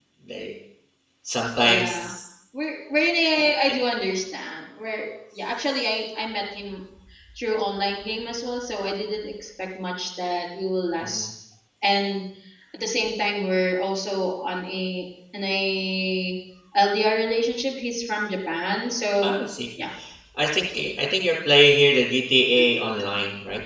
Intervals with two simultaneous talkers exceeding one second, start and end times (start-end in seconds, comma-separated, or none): none